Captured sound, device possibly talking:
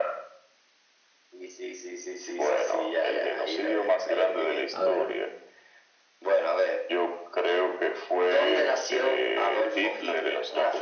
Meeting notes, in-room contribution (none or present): present